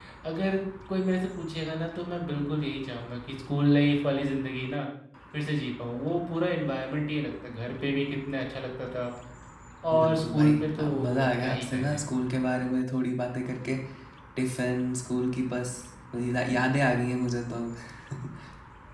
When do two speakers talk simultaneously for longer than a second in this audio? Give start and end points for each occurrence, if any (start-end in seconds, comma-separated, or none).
9.9-12.0